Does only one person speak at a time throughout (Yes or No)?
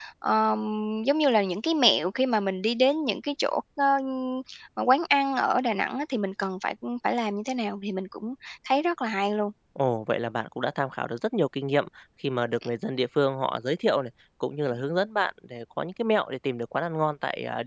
Yes